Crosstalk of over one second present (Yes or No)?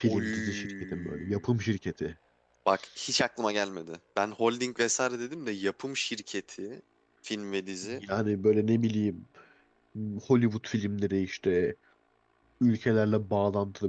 Yes